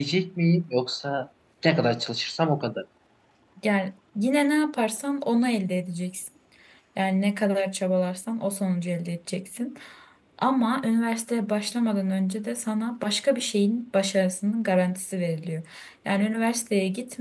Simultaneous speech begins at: none

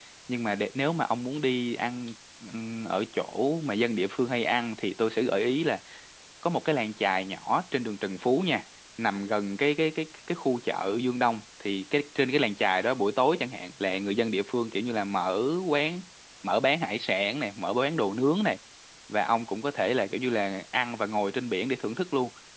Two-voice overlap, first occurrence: none

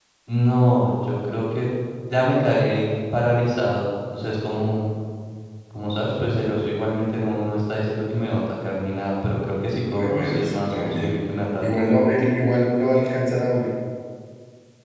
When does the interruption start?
9.9 s

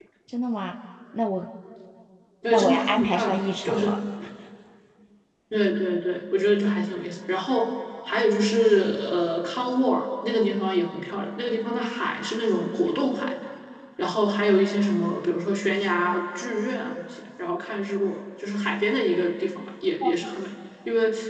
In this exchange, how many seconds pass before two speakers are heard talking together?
2.5 s

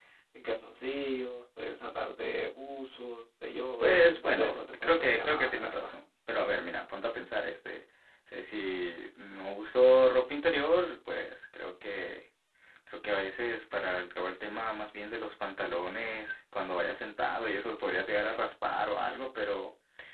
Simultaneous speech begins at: 3.8 s

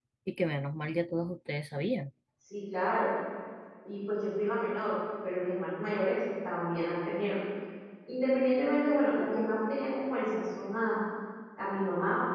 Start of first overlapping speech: none

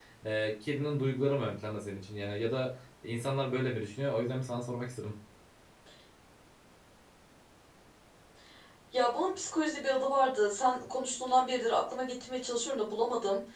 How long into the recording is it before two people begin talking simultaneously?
none

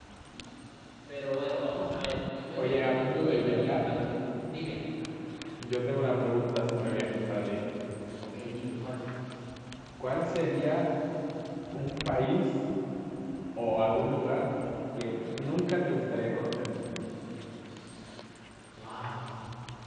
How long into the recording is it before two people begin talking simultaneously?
2.5 s

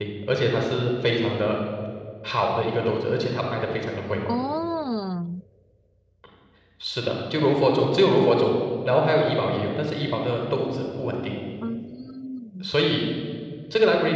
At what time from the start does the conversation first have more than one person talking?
none

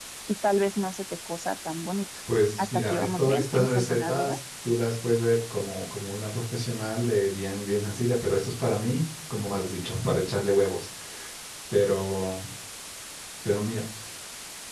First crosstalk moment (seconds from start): 2.6 s

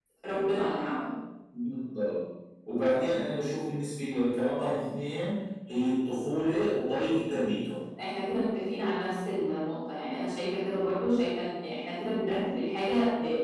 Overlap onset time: none

